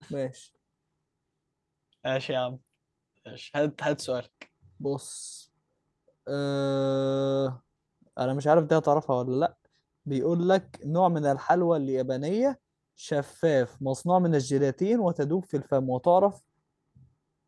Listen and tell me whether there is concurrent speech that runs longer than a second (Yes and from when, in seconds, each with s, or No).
No